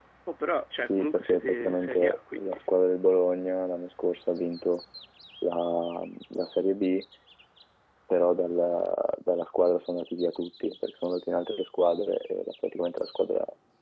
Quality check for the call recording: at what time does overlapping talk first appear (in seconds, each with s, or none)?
0.8 s